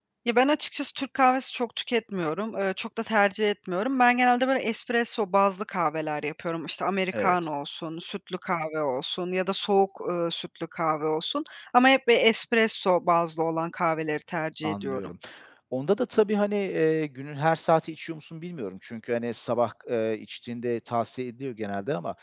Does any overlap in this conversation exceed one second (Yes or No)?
No